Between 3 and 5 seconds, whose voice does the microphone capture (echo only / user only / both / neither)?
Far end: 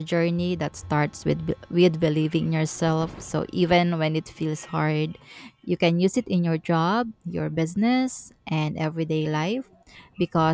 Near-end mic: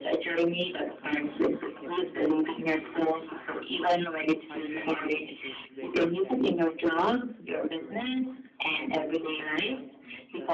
both